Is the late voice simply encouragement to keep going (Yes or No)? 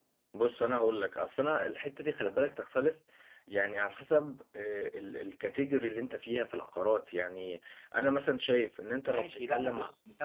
No